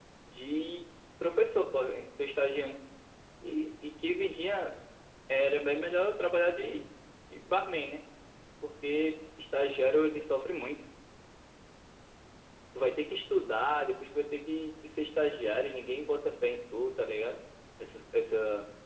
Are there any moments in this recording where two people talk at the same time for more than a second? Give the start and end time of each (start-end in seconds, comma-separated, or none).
none